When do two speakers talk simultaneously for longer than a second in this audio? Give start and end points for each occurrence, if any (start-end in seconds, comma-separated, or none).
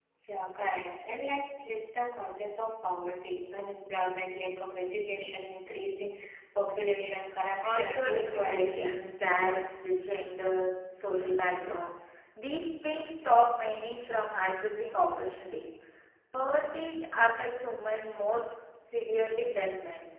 7.6-9.0